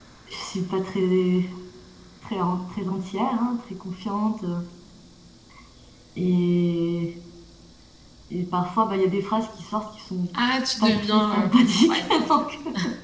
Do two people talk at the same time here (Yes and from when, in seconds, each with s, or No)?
Yes, from 10.8 s